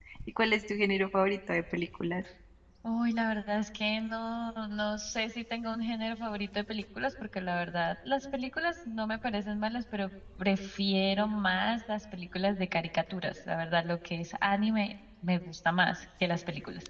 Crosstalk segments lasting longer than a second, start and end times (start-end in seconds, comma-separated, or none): none